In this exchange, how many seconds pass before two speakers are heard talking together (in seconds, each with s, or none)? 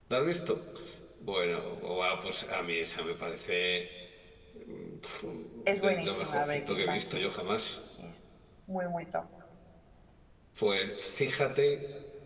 5.8 s